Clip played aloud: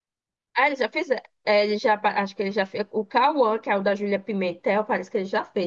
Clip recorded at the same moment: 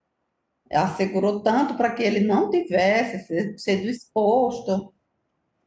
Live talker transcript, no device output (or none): Ela segurou tanto para que ele não tivesse se- sido exposto.